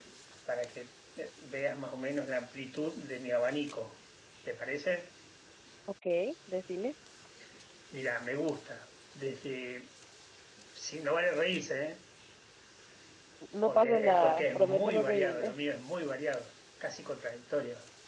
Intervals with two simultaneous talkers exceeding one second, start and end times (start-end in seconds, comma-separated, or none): 13.7-15.5